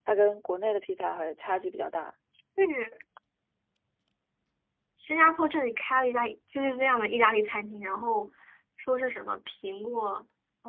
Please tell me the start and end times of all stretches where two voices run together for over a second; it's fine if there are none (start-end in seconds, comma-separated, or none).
none